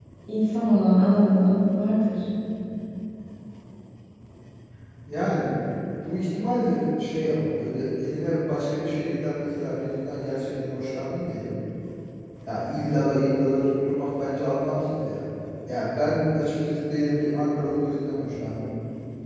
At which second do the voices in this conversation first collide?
none

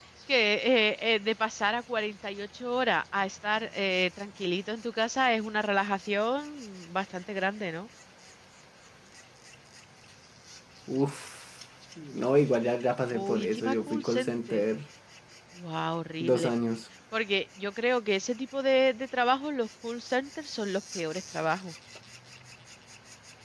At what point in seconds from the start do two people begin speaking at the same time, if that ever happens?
13.1 s

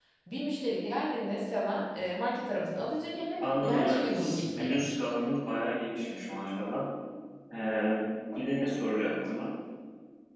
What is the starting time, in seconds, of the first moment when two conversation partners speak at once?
3.4 s

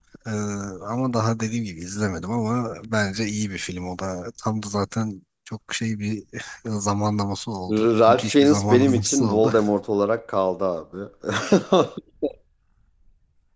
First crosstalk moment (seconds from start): 7.7 s

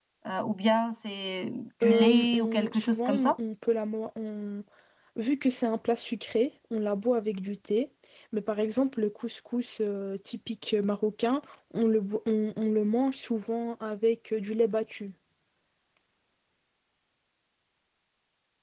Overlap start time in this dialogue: 1.8 s

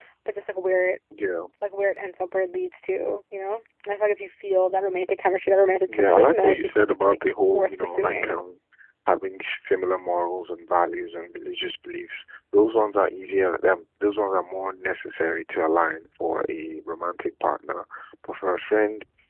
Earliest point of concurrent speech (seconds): 5.9 s

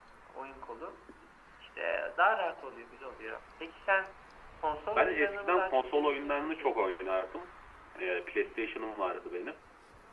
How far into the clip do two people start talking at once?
5.0 s

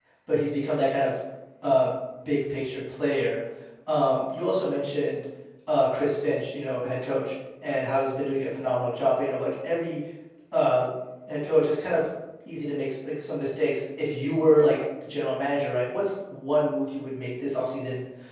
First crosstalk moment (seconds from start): none

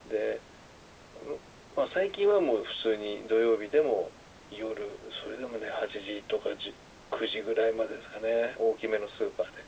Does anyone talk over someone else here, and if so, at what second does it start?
none

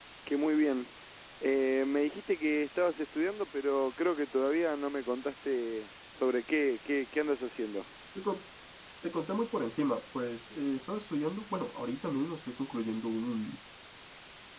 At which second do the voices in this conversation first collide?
none

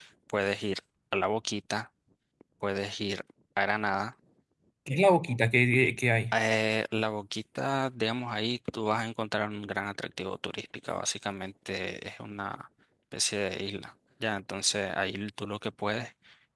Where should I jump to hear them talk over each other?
none

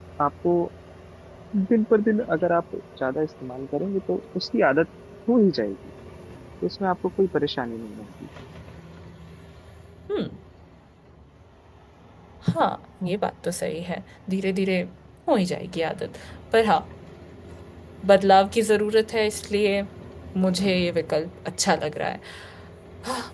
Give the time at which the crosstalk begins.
none

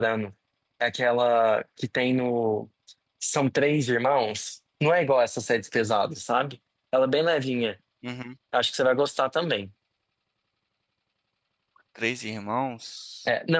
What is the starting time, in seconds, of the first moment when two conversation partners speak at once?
none

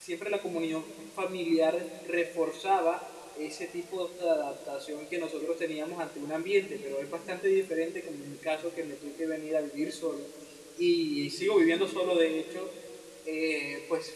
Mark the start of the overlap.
none

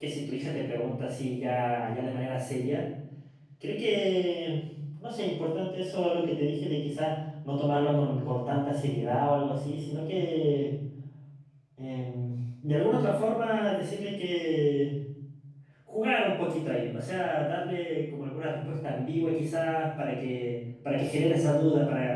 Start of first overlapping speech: none

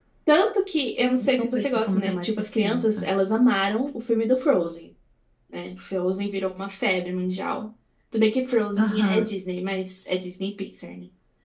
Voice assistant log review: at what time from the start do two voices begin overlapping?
1.4 s

